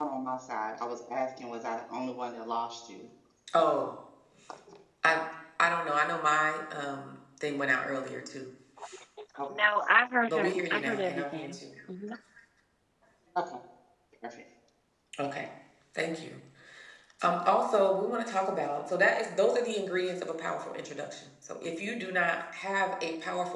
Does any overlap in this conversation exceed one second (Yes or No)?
Yes